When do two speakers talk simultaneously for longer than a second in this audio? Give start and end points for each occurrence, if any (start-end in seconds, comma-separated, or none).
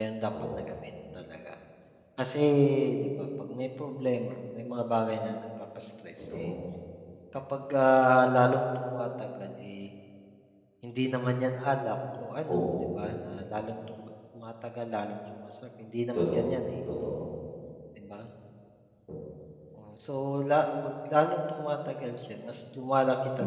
none